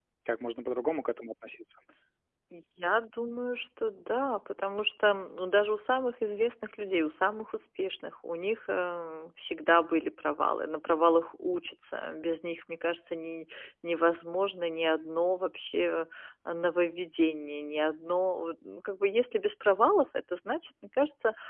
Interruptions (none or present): none